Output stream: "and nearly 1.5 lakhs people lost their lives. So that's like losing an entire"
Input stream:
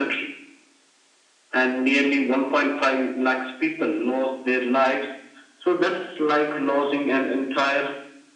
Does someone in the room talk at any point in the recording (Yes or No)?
No